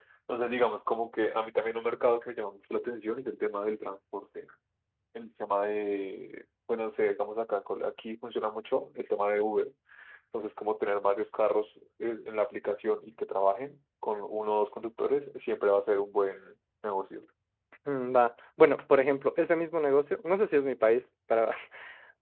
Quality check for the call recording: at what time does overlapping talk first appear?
none

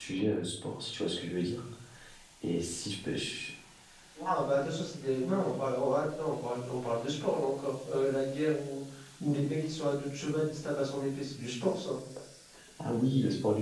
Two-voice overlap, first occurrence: none

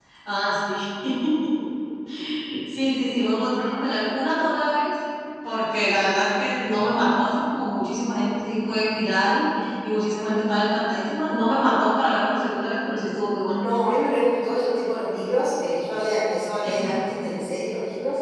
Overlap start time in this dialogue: none

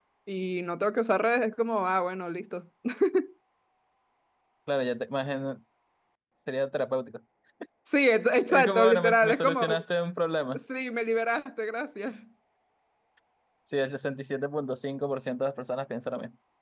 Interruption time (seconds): 8.5 s

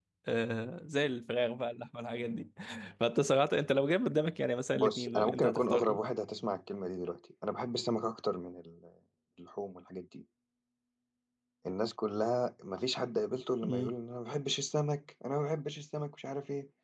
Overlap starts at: 4.8 s

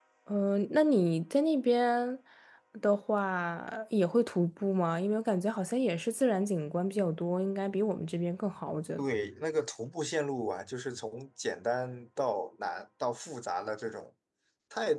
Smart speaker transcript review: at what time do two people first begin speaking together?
none

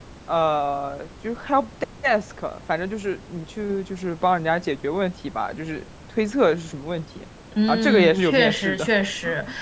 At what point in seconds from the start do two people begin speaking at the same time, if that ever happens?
7.7 s

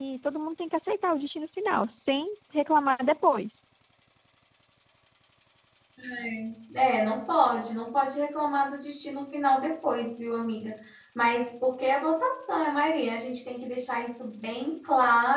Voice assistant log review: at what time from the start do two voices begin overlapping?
none

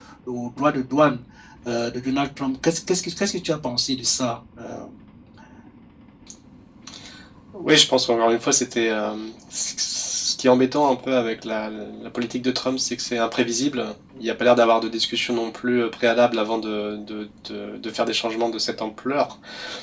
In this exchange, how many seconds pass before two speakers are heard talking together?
none

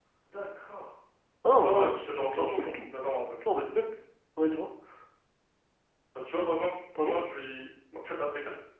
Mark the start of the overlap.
1.5 s

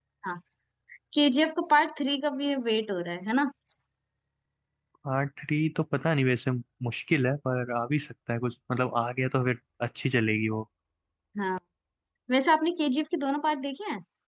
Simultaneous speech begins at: none

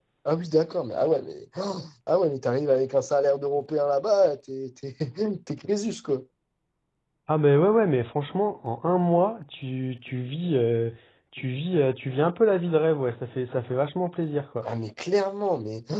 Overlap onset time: none

